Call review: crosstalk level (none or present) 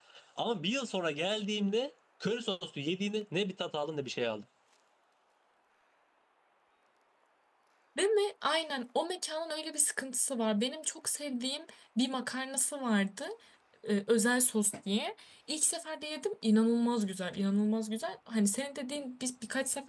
none